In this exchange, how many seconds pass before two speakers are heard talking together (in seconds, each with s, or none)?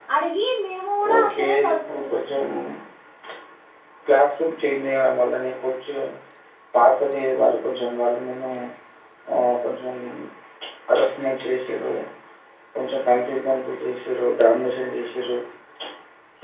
1.2 s